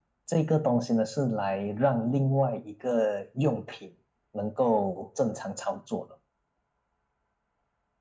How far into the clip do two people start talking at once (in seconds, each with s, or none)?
none